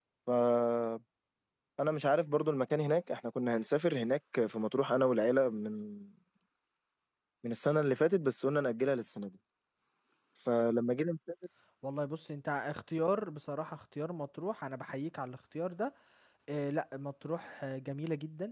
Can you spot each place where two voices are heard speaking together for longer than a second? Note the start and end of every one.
none

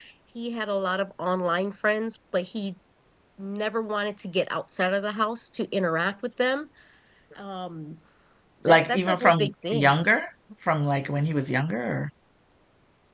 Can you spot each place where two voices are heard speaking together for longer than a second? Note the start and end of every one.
8.7-9.9

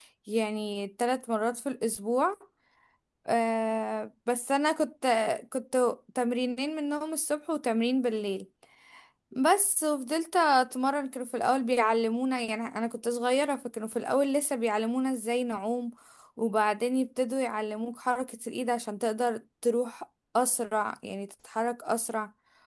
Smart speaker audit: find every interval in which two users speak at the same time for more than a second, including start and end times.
none

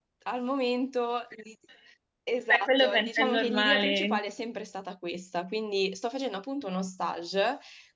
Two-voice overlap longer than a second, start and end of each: 2.5-4.2

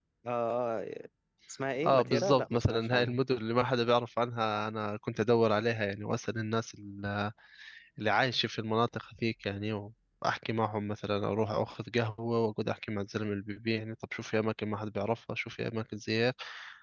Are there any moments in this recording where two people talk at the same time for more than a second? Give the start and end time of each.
1.9-3.2

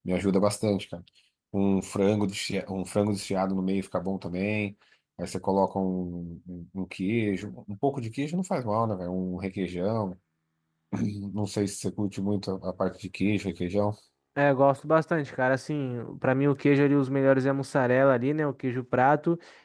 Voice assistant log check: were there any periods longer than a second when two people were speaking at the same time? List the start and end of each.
none

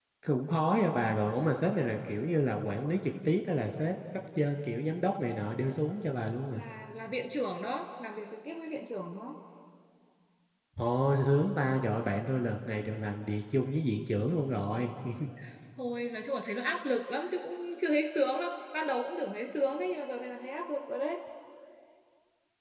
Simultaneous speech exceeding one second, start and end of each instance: none

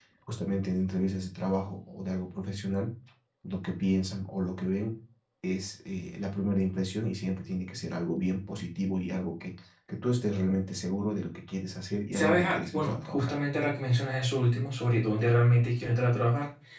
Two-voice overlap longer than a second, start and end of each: 12.1-13.3

